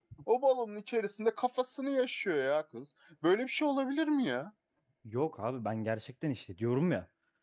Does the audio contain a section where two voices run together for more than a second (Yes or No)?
No